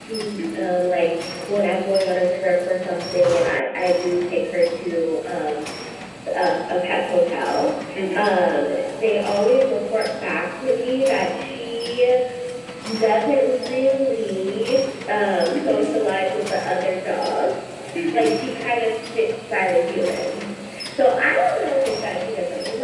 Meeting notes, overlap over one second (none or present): none